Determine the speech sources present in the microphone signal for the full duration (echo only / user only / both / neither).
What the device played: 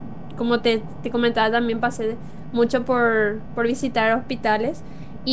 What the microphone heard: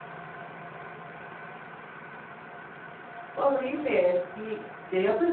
user only